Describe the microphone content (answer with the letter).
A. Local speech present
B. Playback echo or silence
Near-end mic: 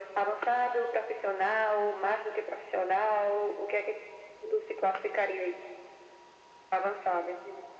B